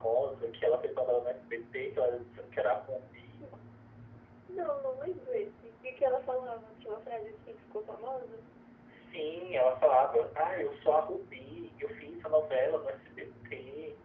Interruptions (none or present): none